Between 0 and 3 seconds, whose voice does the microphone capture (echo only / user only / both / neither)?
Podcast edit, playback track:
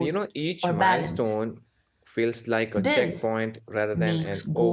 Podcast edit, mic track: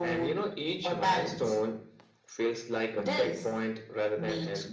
echo only